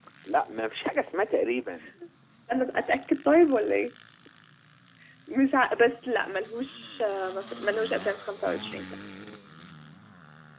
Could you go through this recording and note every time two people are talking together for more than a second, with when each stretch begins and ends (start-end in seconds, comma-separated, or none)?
none